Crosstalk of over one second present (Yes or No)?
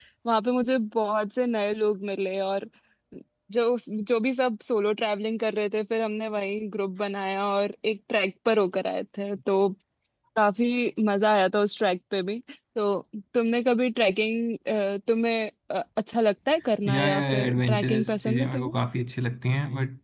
Yes